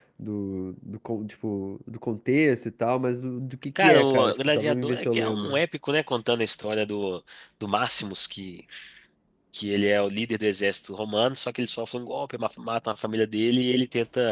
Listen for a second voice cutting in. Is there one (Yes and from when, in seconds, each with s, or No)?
Yes, from 3.8 s